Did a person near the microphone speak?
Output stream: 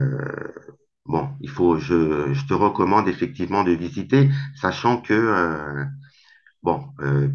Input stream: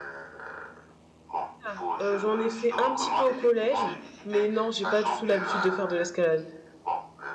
Yes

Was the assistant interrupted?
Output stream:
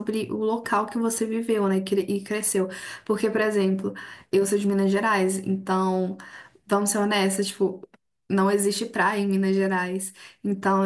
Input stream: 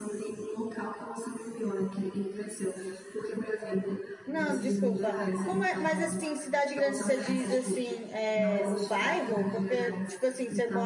Yes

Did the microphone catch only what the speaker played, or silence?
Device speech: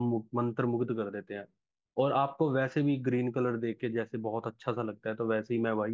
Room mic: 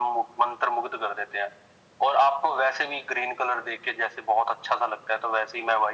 Yes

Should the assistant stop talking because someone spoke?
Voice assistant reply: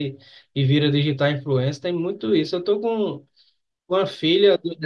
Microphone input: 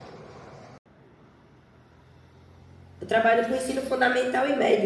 Yes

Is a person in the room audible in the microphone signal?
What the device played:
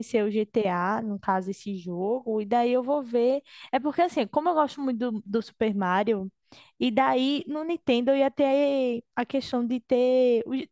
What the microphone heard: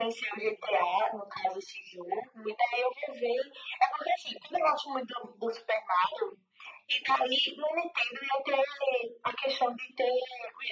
No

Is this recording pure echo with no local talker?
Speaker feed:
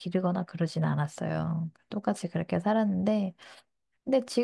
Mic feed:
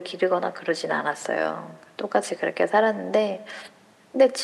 Yes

